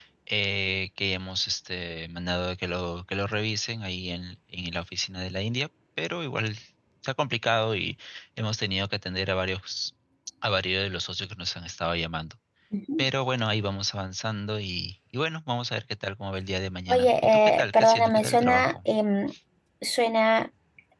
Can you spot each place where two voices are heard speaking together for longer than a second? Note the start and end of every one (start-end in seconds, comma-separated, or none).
16.9-18.9